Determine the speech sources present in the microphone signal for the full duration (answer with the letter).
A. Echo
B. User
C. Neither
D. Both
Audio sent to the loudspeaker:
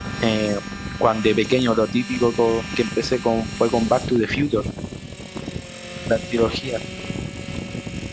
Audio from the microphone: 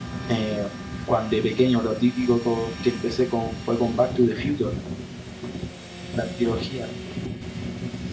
A